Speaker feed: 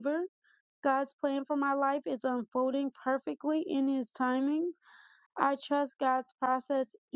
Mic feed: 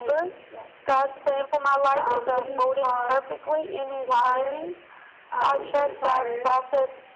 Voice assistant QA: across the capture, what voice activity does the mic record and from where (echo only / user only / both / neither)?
both